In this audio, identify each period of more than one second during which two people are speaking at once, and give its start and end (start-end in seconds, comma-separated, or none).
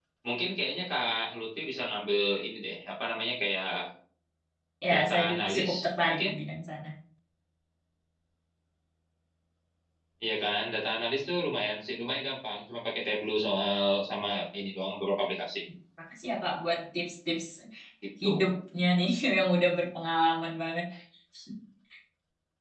4.9-6.3